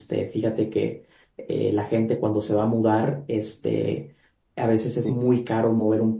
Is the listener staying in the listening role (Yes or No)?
Yes